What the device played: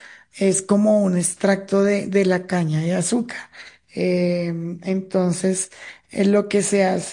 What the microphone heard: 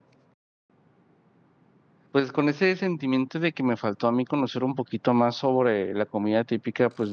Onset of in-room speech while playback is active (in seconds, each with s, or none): 2.1 s